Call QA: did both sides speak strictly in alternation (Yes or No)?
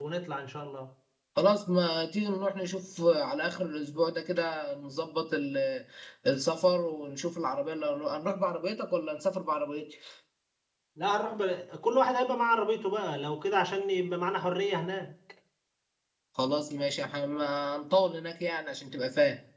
Yes